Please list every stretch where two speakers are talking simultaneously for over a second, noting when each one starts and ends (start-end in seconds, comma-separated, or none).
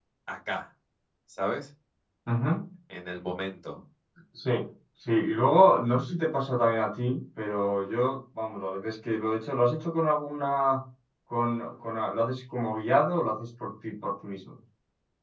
none